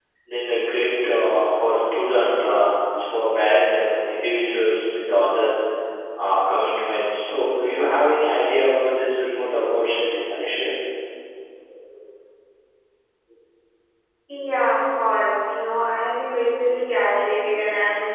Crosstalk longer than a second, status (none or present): none